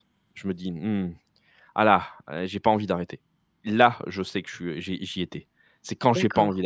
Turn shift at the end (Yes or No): No